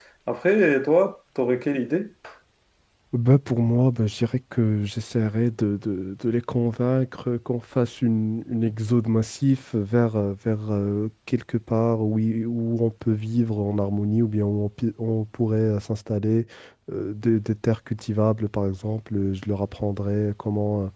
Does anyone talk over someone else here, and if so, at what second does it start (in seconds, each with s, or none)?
none